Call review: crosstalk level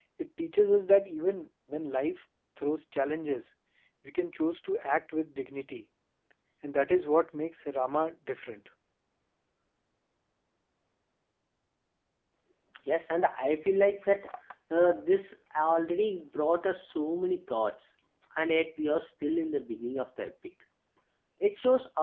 none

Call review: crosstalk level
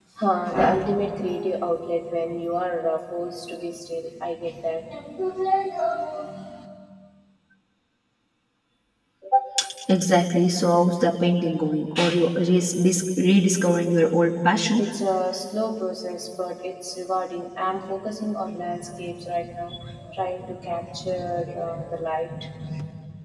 none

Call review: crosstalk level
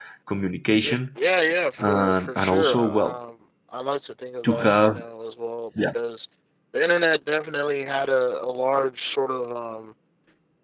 present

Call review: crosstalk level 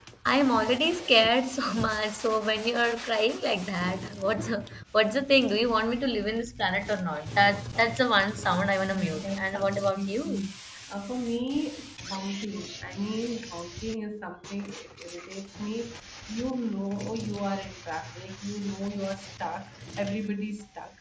present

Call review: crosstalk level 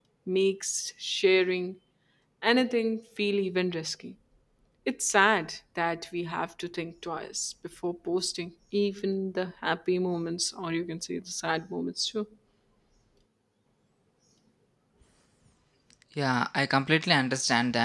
none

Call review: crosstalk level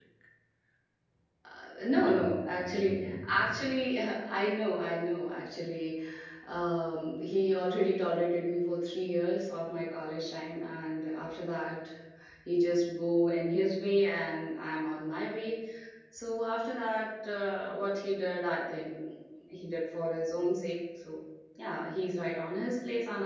present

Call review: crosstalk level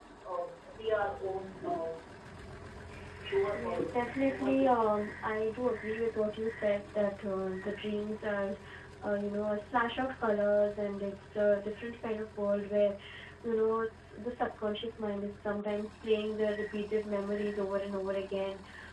present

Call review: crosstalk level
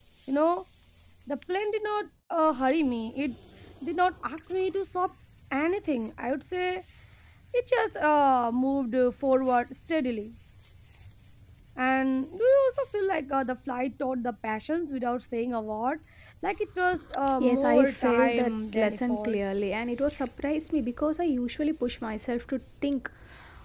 present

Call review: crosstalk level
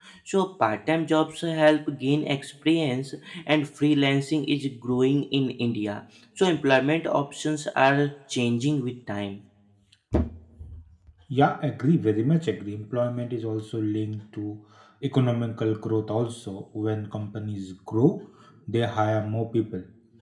none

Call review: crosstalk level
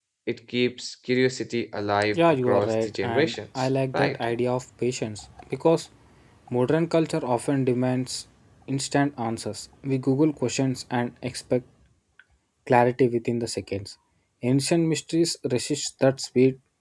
present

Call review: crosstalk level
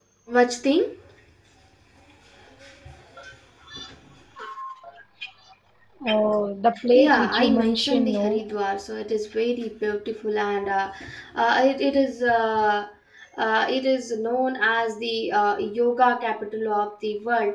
present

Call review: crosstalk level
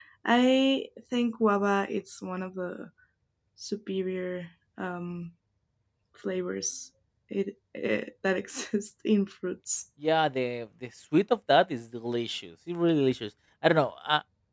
none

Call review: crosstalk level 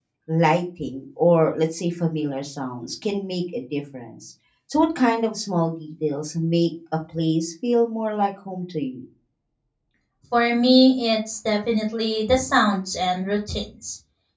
none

